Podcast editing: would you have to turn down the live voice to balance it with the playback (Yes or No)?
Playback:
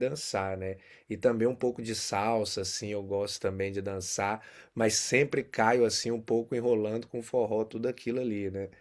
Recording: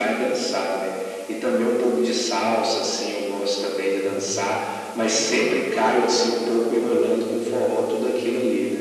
No